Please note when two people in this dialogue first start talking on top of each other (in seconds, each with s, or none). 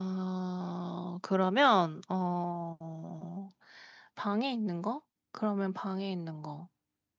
none